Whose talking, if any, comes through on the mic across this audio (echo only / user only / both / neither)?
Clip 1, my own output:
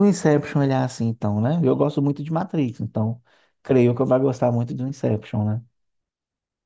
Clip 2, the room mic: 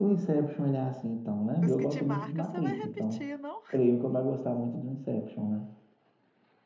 both